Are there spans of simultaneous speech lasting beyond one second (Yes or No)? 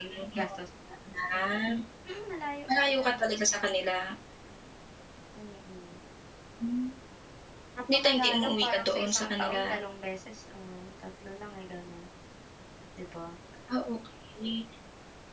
Yes